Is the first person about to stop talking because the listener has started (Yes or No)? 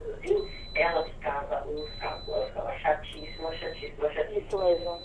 No